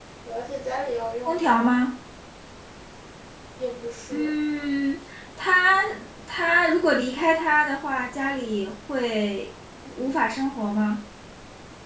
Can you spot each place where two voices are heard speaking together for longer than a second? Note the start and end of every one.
none

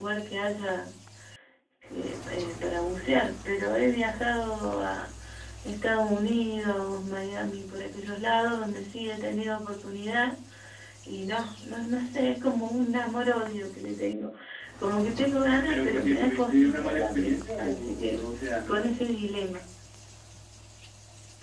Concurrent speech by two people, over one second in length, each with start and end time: 15.7-18.2

